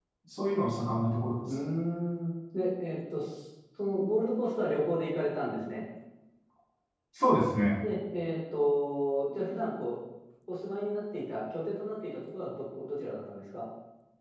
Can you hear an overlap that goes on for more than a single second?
No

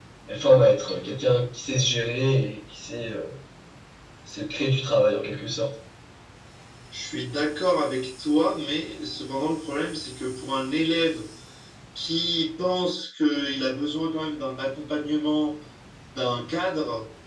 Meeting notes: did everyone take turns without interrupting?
Yes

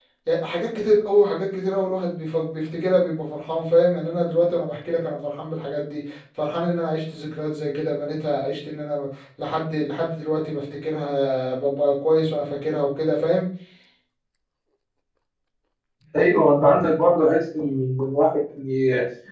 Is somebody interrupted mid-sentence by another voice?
No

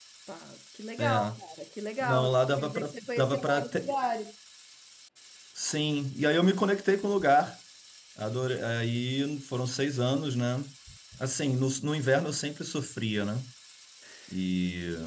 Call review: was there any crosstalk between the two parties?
Yes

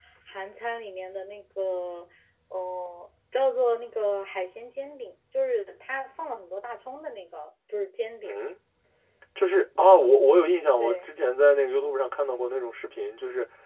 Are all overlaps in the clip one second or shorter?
Yes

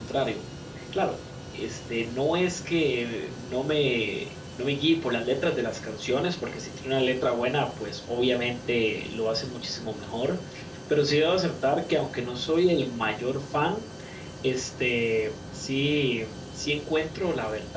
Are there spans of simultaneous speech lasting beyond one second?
No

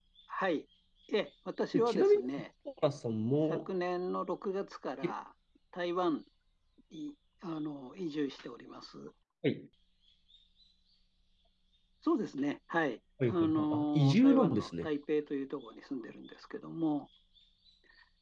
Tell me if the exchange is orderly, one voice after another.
No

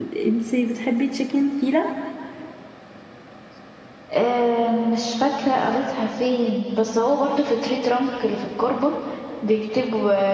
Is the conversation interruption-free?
Yes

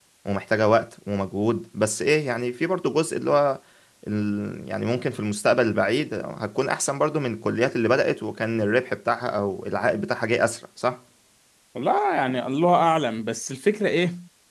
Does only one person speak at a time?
Yes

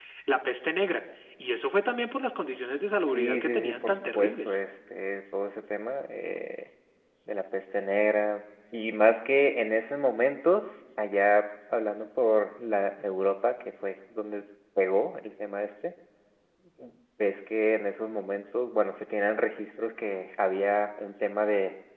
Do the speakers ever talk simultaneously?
Yes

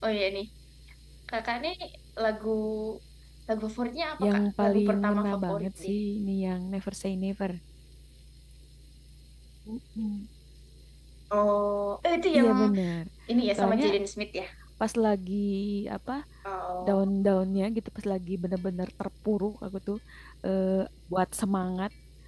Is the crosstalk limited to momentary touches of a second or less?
No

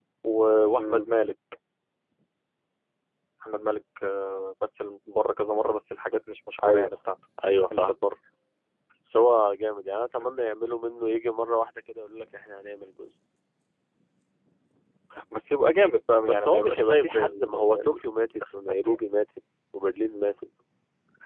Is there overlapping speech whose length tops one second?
Yes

